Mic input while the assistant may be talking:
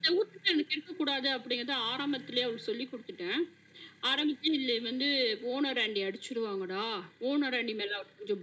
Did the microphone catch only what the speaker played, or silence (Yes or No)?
Yes